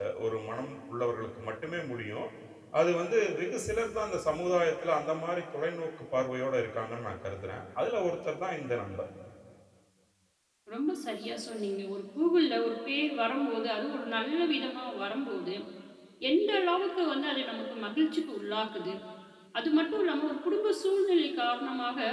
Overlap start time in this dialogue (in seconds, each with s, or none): none